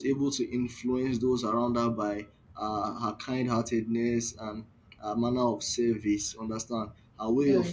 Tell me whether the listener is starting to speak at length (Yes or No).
No